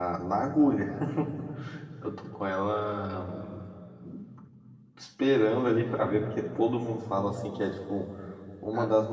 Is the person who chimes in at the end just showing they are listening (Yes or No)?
Yes